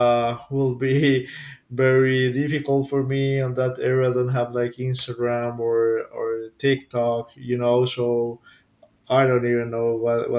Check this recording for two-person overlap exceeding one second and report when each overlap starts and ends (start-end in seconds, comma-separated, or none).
none